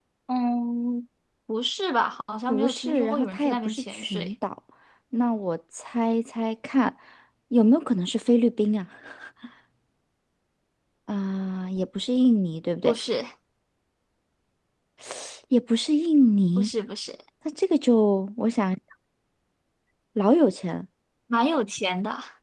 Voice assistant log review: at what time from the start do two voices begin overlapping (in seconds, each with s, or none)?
2.5 s